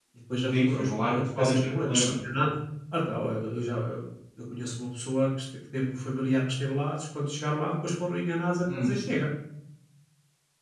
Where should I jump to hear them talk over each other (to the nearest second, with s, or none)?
1 s